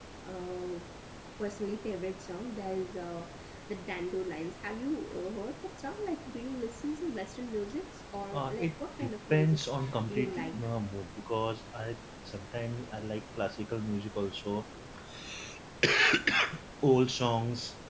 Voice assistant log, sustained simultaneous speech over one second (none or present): present